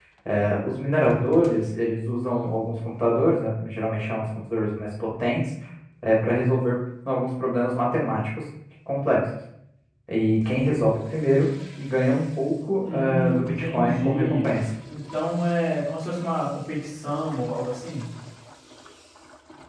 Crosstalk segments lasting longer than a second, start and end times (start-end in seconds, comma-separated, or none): 12.8-14.6